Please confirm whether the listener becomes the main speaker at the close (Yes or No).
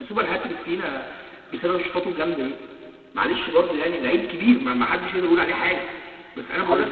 No